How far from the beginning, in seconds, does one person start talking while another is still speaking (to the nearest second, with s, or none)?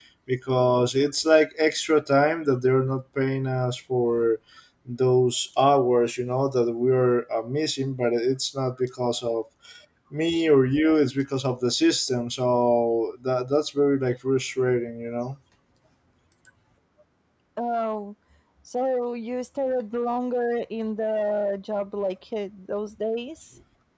none